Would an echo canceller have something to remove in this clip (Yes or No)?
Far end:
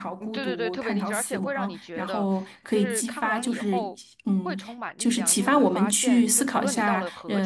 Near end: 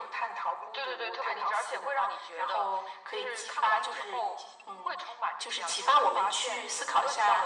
Yes